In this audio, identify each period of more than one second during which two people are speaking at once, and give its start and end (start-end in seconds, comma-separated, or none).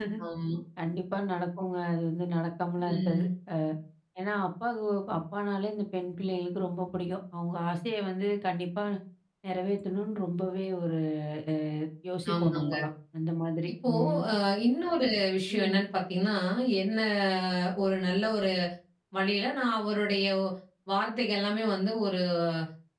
none